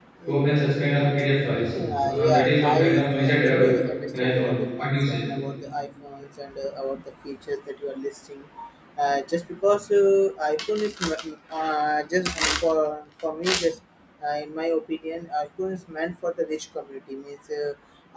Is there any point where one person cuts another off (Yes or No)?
Yes